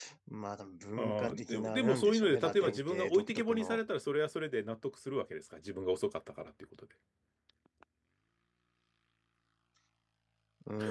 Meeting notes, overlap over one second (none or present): present